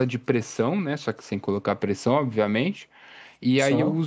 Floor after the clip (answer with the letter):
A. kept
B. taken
A